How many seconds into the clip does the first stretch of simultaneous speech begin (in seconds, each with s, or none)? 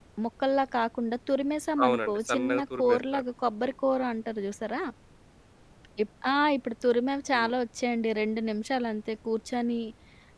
1.8 s